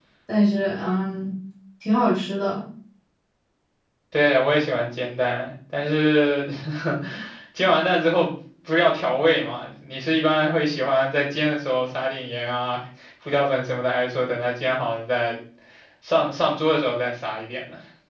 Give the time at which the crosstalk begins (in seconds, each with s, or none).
none